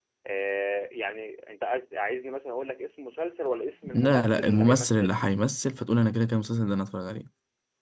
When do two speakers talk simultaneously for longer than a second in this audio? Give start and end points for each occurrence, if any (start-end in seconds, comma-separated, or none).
3.8-5.1